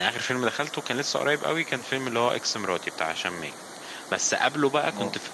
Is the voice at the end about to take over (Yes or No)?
No